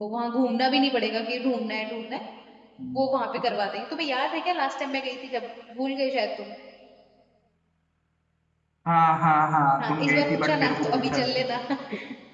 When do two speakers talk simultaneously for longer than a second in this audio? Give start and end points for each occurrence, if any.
9.9-11.3

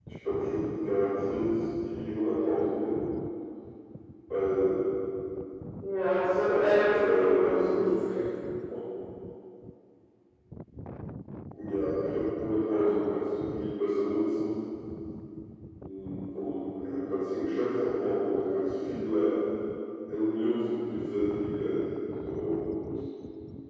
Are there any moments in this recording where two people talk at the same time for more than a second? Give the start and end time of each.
6.3-7.8

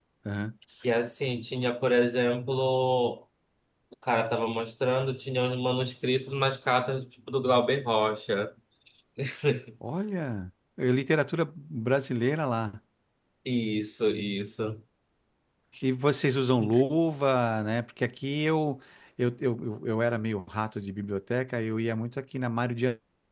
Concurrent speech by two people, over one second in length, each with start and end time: none

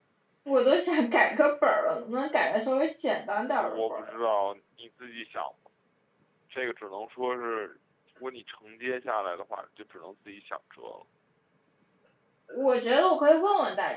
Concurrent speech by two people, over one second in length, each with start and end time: none

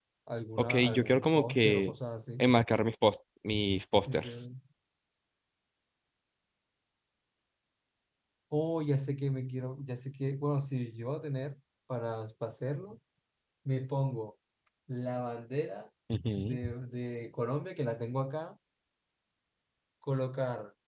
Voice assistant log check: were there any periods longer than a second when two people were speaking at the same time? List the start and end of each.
0.6-1.9

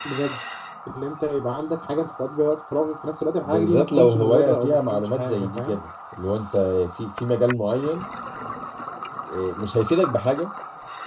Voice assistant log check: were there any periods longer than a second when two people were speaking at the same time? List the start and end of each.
3.4-5.8

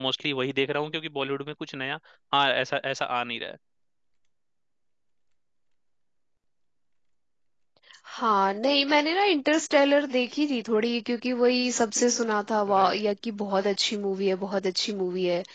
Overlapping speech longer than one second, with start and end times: none

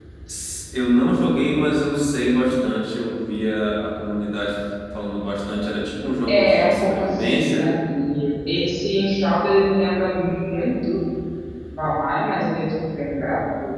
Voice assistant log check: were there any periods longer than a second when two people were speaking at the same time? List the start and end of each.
6.3-7.6

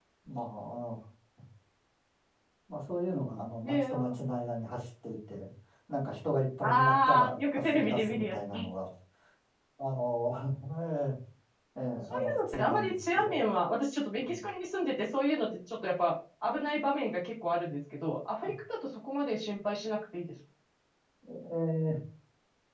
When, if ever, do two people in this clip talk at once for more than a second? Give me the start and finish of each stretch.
6.6-8.7, 12.1-13.4

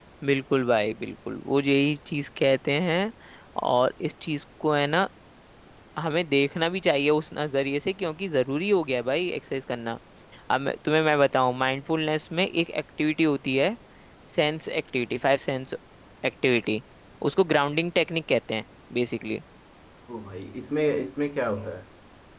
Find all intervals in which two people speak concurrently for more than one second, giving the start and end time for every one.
none

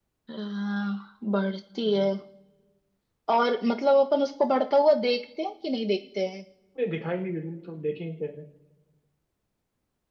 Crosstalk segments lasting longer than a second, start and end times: none

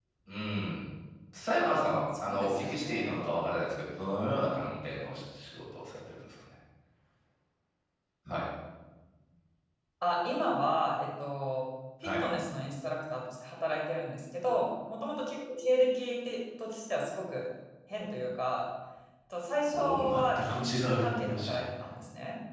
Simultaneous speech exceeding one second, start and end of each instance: 1.6-3.2, 19.7-21.6

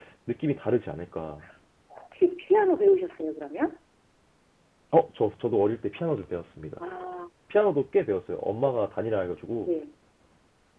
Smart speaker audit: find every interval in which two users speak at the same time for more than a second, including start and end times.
none

